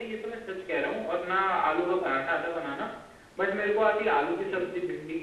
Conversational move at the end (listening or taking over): listening